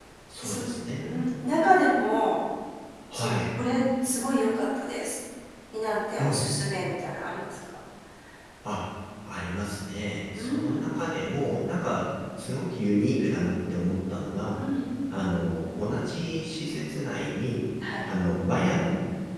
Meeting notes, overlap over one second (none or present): none